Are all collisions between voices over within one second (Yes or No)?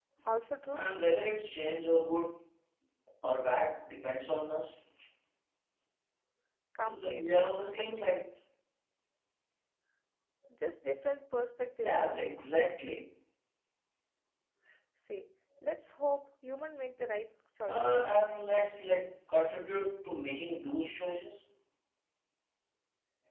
No